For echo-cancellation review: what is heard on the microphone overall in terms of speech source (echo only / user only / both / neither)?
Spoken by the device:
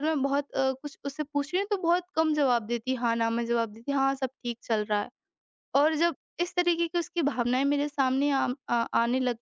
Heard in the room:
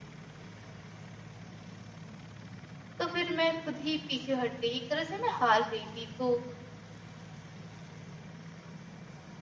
user only